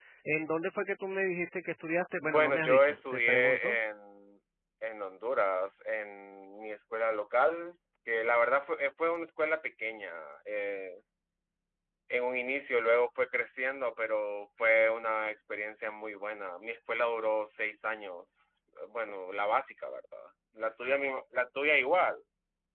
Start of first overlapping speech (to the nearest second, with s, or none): 2 s